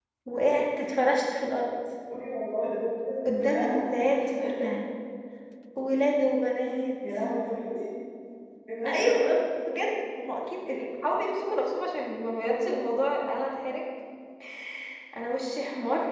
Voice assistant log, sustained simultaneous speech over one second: none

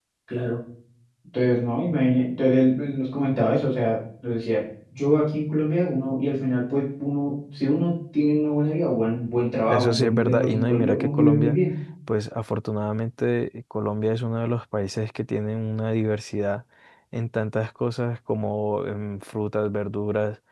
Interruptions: present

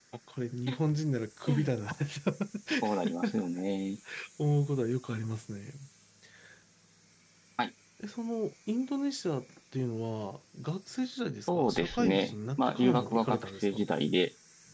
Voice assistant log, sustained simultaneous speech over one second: present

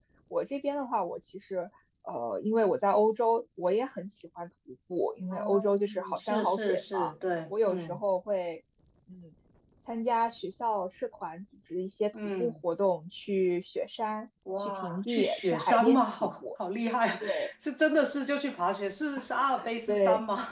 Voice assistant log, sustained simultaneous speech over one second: present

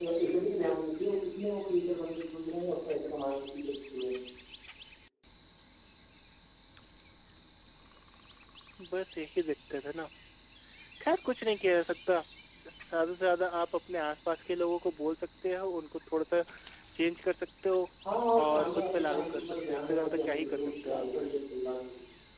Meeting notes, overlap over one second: present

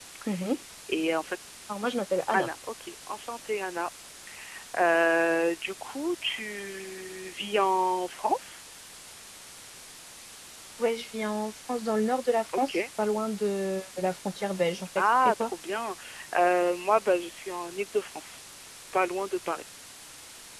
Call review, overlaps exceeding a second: none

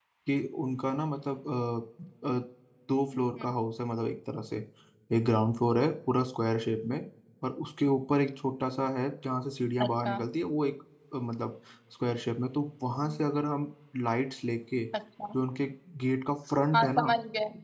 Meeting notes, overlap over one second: none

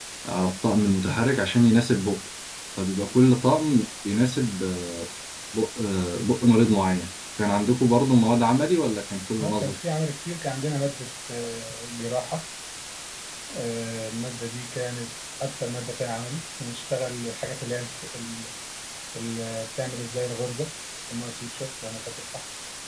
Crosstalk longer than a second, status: none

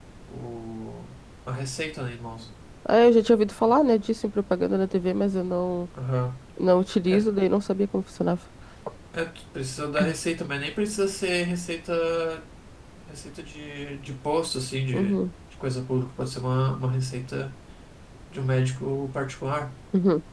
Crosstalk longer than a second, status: none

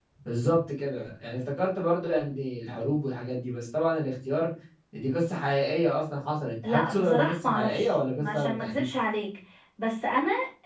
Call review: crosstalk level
present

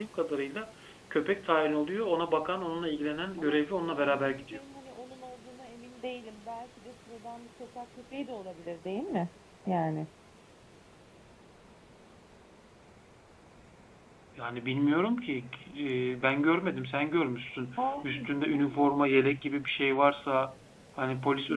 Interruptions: present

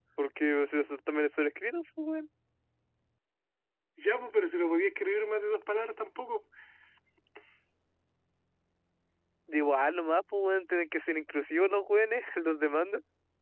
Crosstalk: none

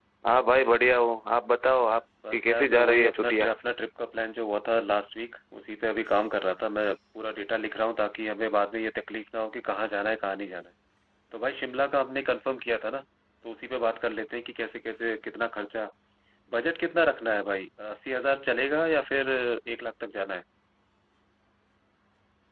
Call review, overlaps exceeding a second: present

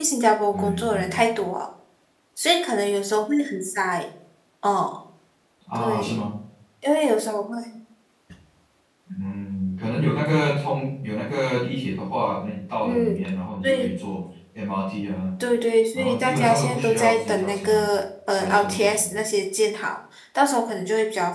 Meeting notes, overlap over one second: present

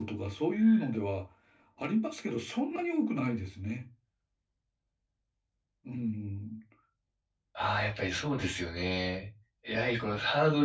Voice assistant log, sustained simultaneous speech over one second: none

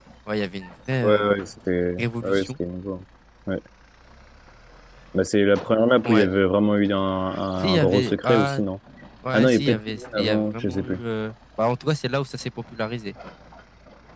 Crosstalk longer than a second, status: present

